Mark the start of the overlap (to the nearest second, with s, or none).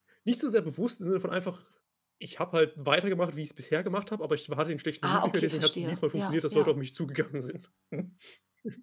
5 s